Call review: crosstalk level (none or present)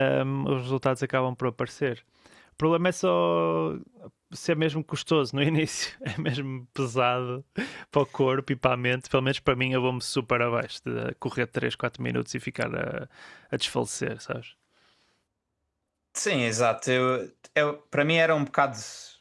none